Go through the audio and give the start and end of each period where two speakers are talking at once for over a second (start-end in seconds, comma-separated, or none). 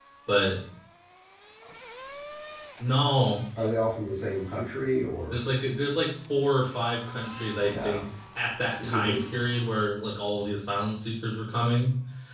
none